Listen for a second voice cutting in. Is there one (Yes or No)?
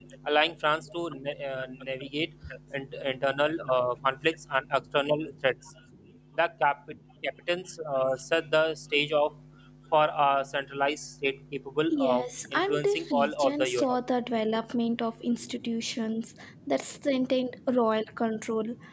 Yes